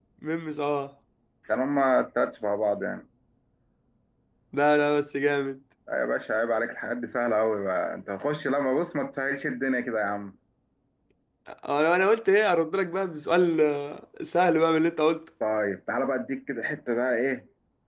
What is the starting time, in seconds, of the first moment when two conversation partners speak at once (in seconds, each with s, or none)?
none